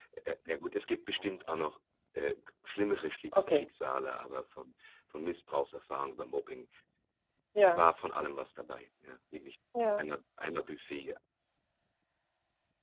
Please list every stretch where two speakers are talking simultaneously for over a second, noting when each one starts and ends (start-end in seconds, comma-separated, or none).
none